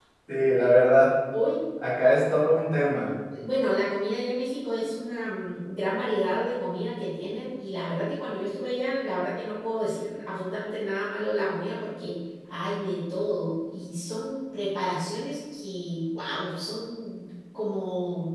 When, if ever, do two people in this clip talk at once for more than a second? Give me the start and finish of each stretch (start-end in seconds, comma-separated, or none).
none